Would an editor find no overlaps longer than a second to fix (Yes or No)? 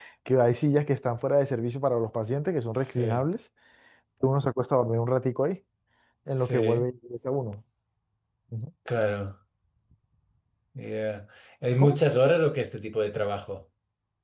Yes